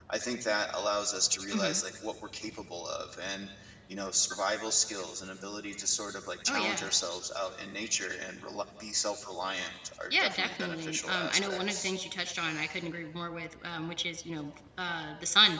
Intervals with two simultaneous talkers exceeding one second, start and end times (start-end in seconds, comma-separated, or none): 10.1-11.9